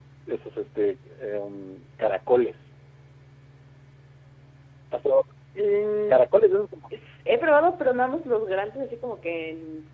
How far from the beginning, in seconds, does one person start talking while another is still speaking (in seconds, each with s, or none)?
none